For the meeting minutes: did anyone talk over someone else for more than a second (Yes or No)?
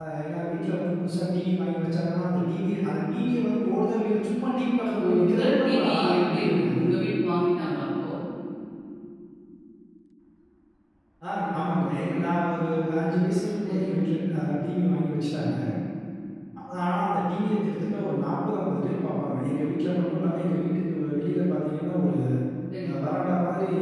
Yes